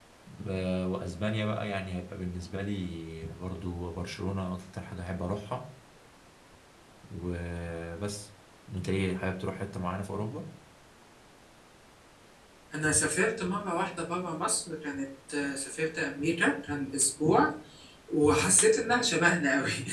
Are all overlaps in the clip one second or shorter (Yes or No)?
Yes